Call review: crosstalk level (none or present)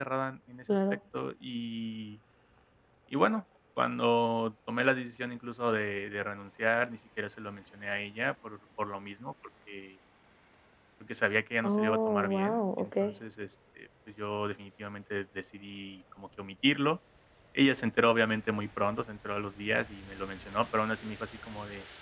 present